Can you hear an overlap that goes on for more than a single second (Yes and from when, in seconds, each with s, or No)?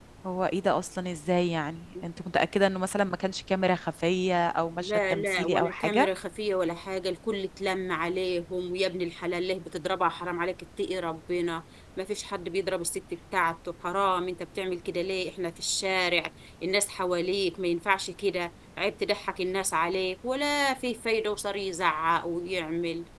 Yes, from 4.8 s